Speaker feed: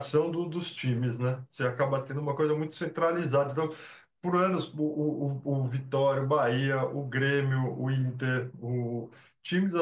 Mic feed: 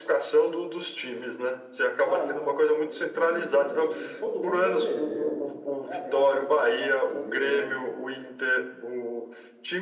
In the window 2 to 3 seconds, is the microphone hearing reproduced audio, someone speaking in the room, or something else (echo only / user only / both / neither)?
both